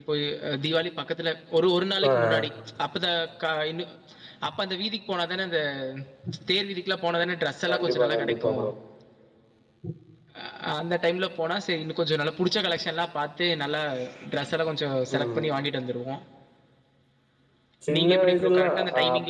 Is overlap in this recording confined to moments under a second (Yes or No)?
No